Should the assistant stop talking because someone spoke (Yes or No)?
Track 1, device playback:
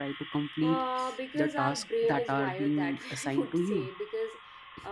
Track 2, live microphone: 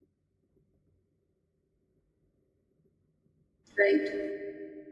Yes